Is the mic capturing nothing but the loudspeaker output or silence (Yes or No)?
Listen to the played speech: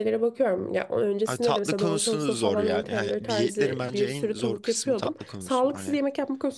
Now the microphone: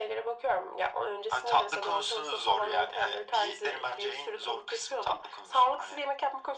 Yes